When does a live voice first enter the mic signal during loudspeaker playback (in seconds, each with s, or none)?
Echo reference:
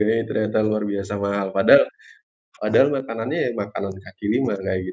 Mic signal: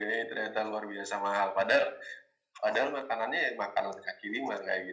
none